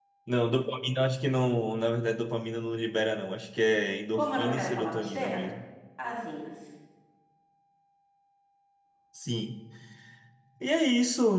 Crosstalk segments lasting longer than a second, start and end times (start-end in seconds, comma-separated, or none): 4.1-5.4